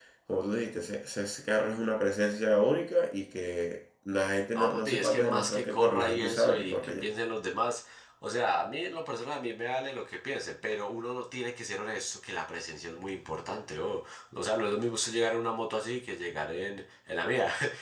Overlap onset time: 4.5 s

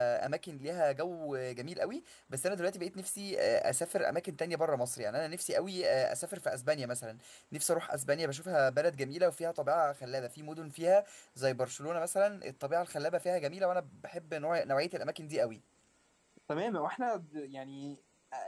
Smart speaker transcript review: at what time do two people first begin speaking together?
none

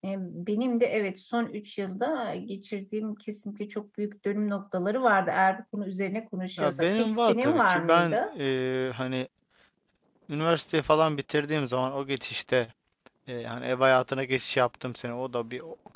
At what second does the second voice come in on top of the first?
6.6 s

